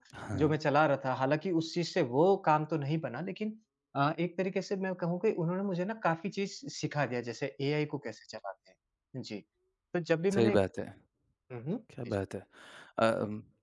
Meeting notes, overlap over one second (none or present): none